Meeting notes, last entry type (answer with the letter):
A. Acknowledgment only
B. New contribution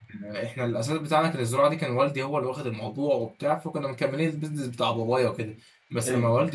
A